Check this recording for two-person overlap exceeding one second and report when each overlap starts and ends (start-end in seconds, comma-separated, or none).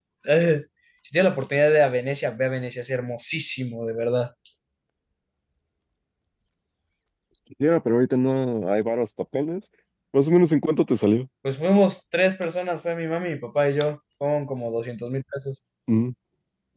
none